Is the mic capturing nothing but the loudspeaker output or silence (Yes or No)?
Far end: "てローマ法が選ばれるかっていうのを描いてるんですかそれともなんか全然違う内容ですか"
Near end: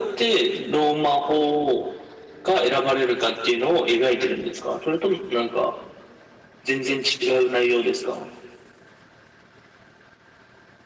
Yes